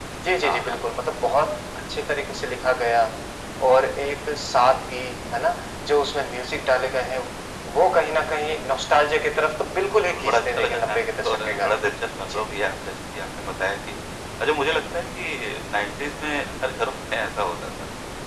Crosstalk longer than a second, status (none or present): present